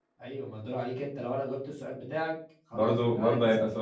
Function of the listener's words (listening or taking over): taking over